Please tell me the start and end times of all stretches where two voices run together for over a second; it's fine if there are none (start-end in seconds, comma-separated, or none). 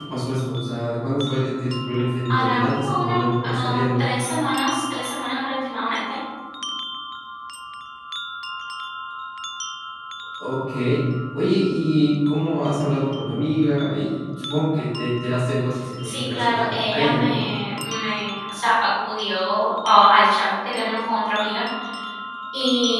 2.3-4.0, 16.0-17.4